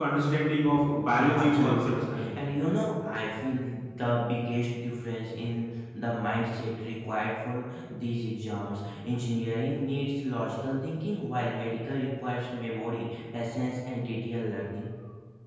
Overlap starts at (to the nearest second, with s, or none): 1 s